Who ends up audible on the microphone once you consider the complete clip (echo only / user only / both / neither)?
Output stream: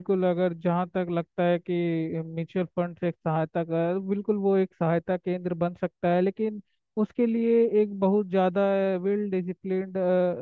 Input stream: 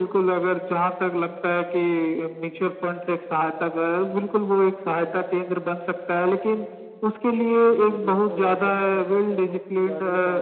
both